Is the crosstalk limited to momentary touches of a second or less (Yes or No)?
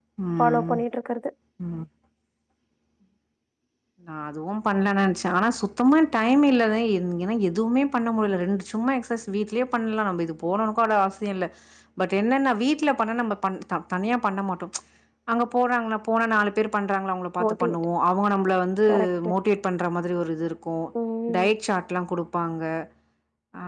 Yes